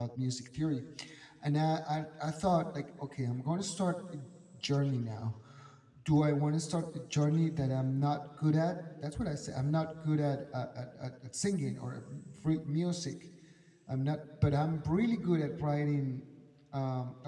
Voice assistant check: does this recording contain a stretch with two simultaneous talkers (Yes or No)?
No